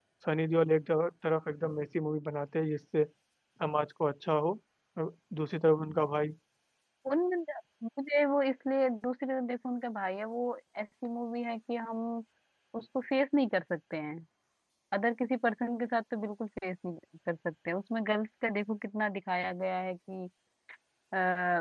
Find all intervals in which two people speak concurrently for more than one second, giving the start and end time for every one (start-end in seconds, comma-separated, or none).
none